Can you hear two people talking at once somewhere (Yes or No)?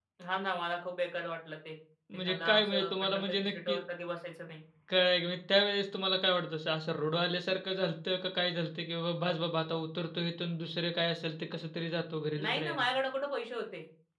Yes